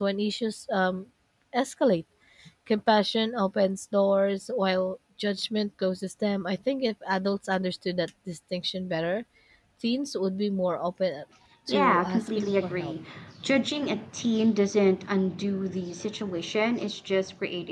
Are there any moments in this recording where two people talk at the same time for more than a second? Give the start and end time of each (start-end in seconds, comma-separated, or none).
11.7-12.9